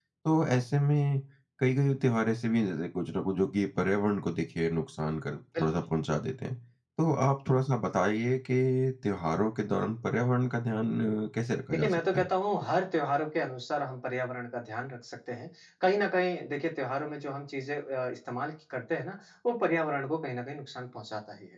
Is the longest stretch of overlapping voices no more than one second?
Yes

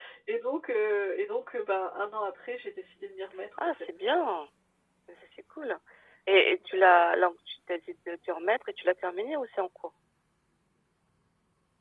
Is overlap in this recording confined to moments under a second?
Yes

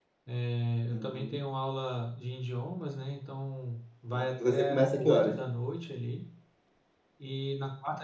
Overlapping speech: Yes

